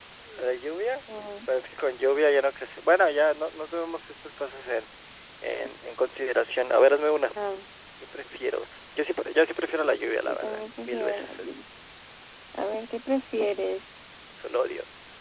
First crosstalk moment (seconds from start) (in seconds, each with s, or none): 10.2 s